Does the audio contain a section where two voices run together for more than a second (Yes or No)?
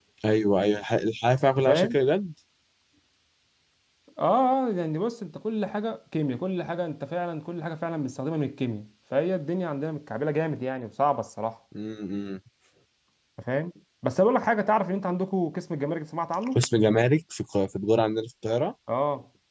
No